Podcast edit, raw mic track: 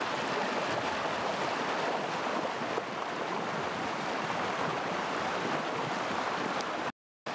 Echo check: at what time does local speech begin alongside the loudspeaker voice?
none

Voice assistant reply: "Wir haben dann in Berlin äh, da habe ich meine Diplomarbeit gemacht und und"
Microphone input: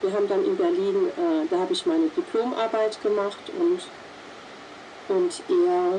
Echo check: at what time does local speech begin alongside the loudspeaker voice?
none

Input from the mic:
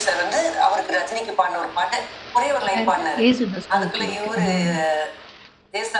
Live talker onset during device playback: 3 s

